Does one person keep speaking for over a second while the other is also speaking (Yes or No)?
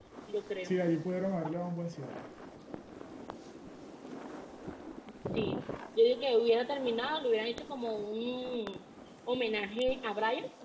No